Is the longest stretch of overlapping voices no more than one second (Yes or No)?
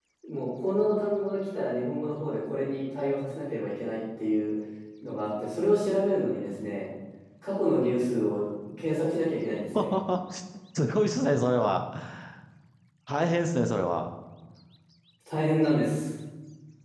Yes